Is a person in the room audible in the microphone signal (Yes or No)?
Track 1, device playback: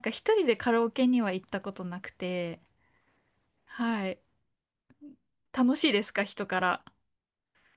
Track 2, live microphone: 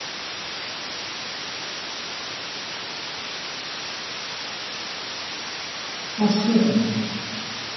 Yes